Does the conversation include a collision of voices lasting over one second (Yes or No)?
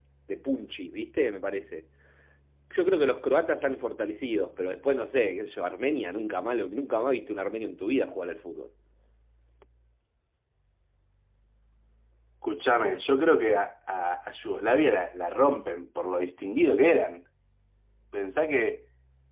No